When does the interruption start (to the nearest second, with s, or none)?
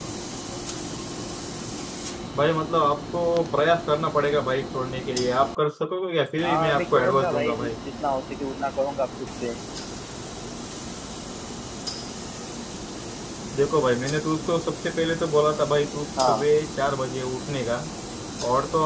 6 s